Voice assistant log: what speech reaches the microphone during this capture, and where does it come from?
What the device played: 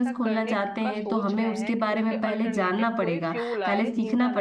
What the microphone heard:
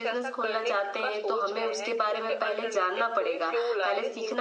echo only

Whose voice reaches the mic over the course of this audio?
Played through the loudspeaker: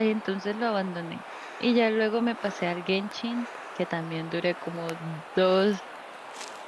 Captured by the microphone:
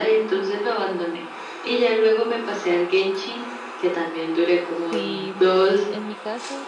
both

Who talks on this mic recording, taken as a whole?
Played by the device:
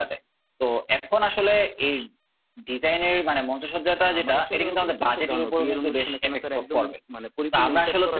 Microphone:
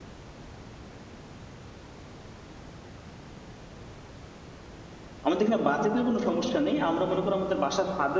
user only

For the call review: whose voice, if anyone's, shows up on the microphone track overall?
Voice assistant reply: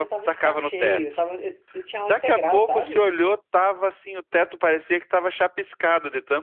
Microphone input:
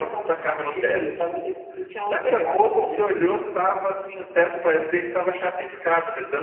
echo only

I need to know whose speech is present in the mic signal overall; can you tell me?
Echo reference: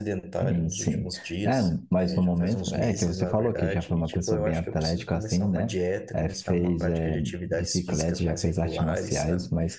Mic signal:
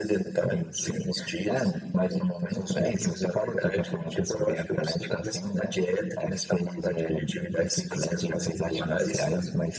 both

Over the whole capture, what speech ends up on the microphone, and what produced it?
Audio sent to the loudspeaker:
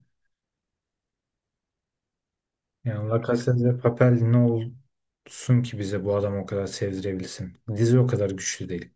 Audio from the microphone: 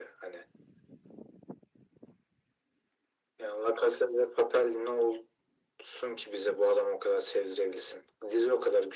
echo only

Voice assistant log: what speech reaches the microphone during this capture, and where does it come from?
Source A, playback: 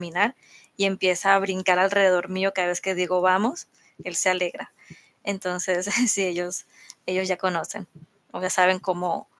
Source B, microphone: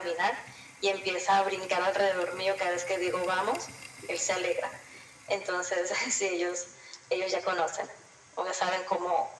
echo only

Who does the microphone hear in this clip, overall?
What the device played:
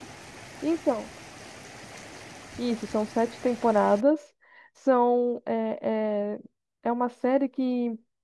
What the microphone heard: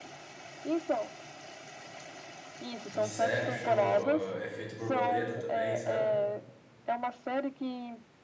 both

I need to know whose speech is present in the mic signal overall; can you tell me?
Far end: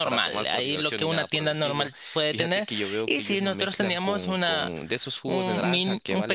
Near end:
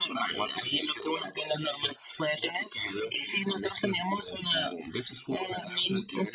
echo only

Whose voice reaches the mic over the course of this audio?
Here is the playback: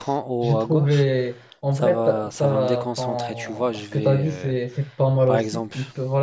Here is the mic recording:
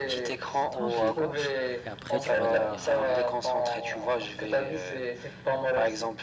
both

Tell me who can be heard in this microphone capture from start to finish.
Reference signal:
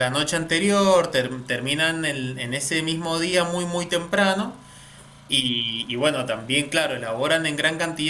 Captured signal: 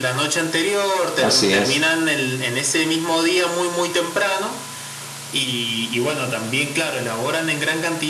both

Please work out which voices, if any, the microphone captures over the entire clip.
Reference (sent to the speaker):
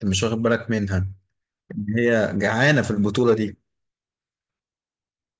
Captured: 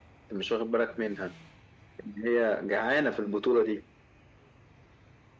echo only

